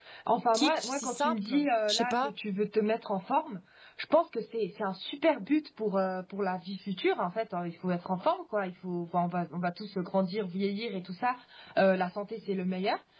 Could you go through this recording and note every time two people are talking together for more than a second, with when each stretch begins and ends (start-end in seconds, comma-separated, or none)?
0.5-2.3